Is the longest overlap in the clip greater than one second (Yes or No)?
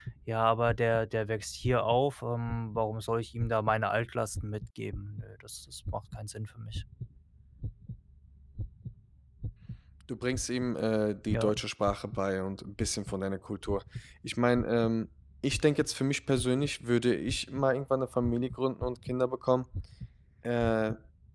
No